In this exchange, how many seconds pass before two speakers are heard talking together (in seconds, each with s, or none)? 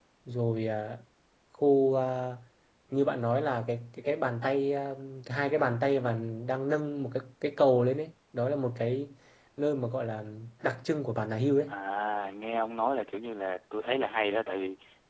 none